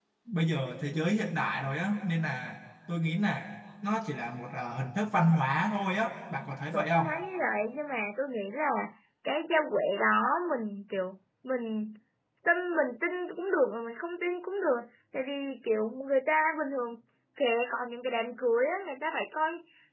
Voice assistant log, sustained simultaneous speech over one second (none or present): none